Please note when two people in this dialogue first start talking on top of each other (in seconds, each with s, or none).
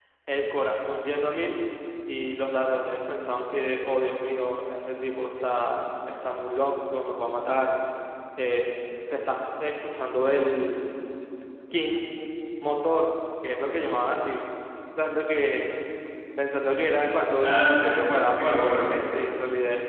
17.3 s